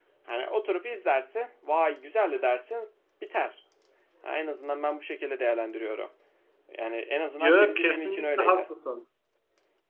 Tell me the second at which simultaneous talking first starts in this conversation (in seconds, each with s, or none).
7.4 s